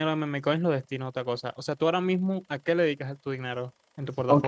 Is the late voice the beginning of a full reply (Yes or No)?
Yes